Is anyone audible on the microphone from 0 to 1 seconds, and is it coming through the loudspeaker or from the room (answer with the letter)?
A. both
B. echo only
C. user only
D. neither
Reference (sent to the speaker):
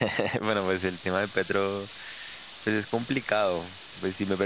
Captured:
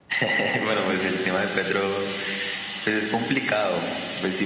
B